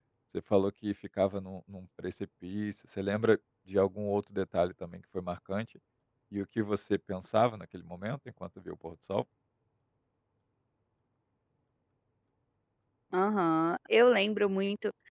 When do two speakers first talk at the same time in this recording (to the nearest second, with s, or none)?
none